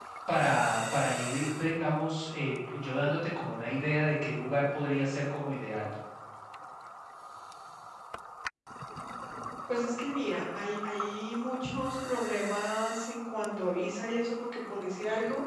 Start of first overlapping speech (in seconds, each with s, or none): none